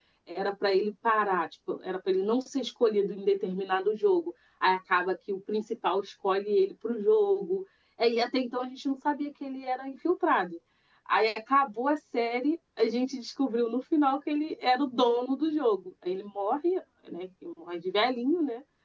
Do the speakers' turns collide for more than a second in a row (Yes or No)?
No